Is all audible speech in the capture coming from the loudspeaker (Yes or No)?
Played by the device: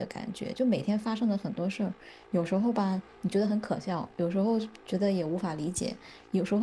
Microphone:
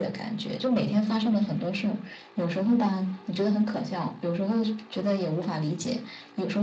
Yes